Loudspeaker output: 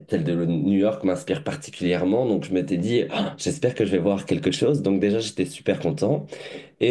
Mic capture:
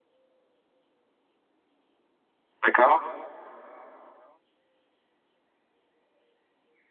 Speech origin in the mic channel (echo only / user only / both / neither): user only